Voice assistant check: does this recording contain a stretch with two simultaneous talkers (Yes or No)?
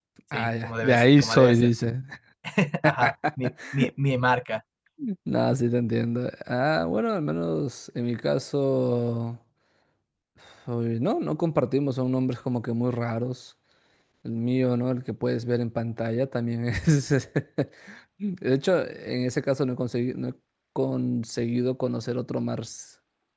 Yes